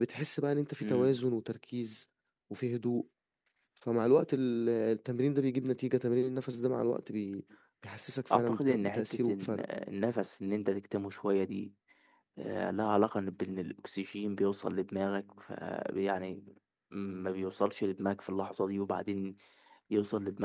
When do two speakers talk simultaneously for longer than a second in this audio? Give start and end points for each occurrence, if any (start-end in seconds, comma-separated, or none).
8.3-9.6